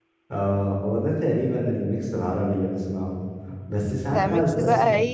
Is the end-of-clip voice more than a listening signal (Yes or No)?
Yes